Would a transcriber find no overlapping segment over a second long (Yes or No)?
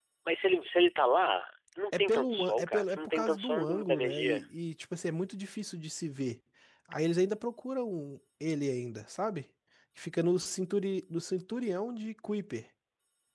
No